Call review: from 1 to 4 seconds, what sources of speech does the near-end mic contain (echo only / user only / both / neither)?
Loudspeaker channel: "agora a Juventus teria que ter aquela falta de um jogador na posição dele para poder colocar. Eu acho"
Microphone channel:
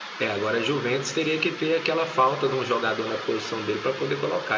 echo only